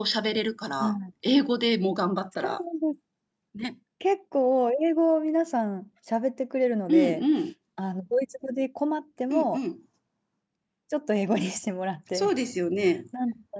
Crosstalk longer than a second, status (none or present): none